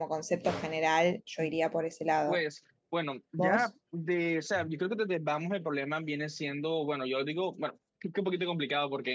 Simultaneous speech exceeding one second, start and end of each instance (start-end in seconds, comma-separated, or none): none